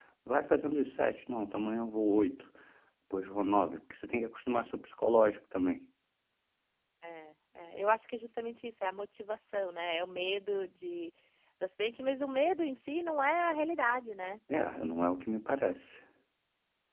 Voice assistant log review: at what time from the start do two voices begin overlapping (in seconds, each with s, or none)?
none